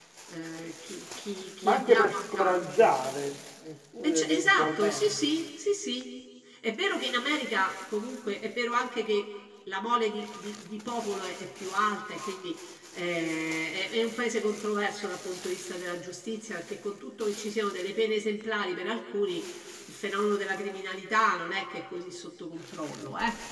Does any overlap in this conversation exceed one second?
Yes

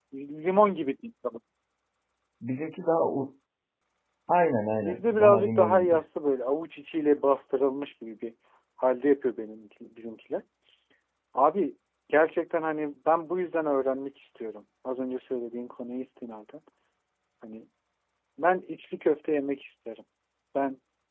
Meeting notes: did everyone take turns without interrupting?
No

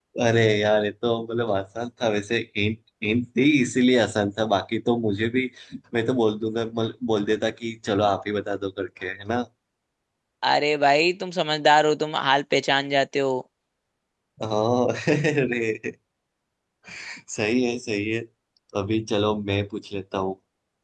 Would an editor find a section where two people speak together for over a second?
No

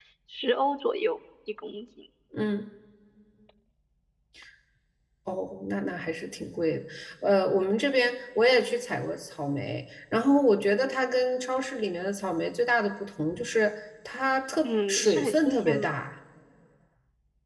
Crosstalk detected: Yes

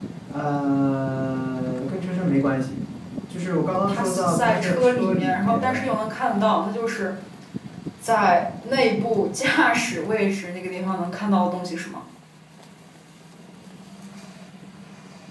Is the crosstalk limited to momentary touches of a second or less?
No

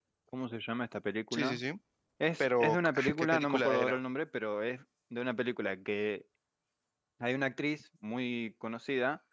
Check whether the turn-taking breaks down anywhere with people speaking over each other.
Yes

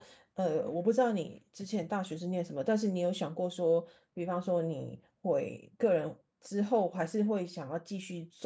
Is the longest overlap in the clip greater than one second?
No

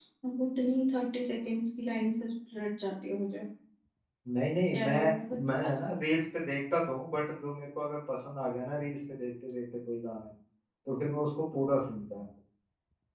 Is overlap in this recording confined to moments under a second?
Yes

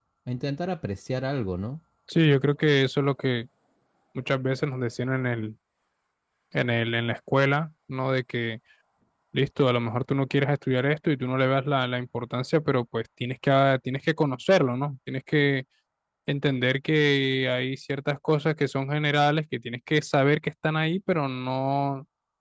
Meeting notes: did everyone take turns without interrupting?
Yes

